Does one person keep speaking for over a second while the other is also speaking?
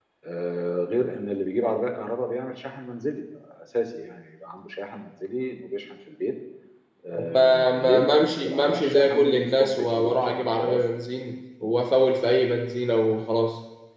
Yes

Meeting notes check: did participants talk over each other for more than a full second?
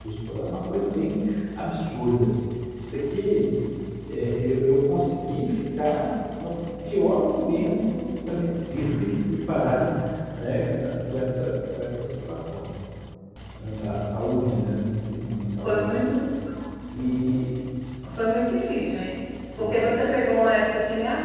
No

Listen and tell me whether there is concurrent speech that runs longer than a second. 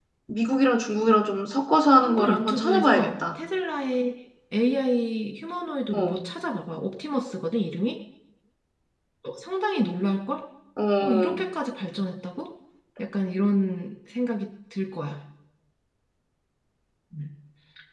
Yes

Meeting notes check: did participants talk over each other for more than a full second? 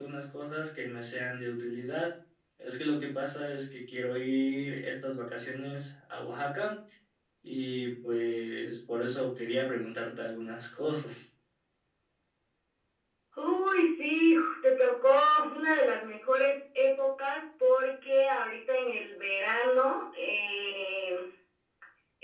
No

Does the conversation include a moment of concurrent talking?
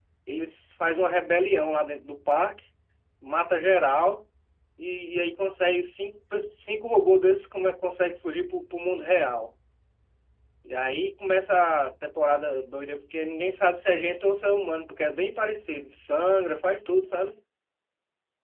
No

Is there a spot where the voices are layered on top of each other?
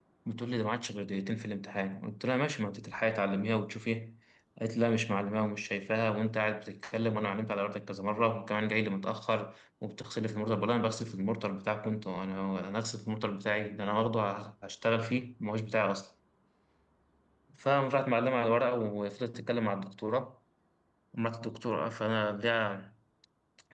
No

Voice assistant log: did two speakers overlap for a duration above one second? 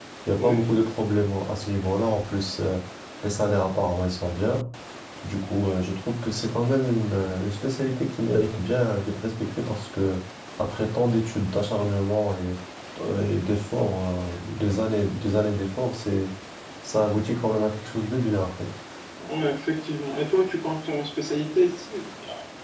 No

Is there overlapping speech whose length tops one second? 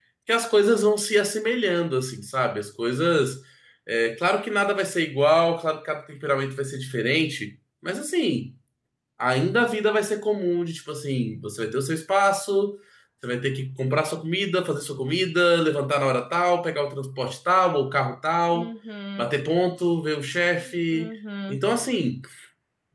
No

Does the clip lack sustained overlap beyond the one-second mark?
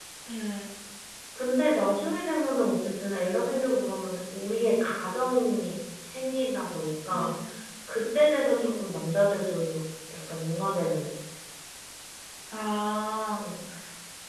Yes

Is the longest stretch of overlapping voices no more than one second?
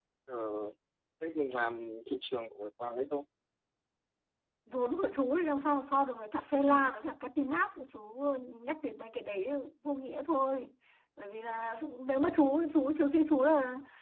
Yes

